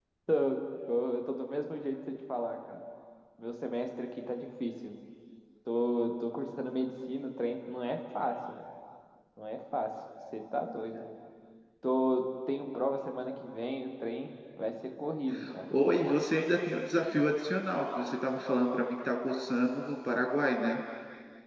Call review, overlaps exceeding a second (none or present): none